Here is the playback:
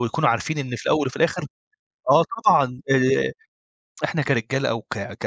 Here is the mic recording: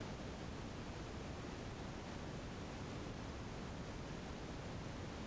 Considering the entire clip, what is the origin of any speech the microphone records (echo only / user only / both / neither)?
neither